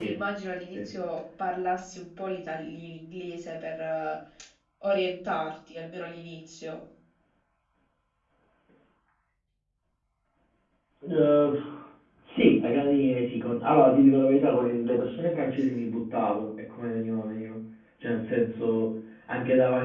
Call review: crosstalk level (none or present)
none